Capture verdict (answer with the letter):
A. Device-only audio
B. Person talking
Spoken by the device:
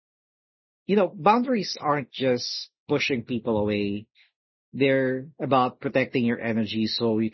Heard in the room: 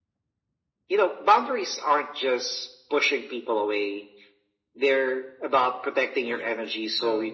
B